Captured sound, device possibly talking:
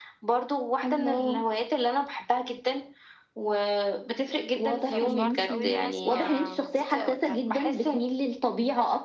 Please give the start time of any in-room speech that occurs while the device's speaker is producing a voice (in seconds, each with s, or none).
4.8 s